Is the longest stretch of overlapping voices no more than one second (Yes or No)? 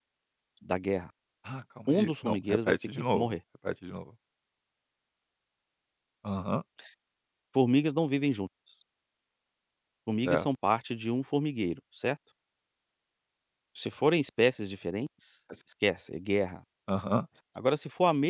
No